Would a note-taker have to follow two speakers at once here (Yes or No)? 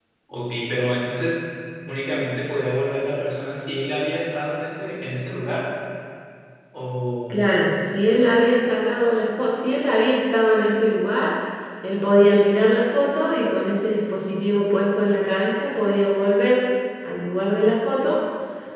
No